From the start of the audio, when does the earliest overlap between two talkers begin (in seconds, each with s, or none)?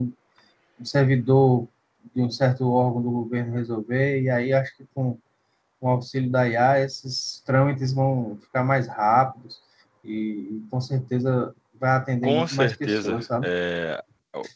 12.2 s